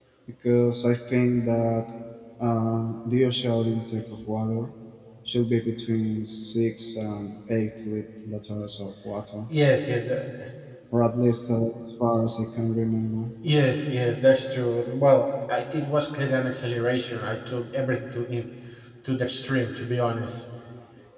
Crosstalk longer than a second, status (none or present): none